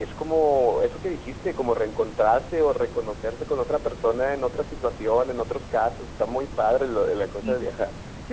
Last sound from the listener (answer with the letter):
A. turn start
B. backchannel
A